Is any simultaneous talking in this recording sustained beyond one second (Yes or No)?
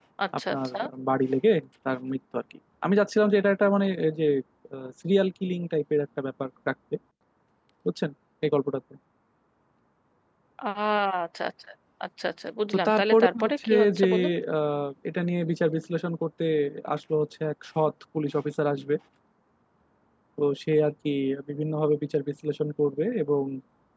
Yes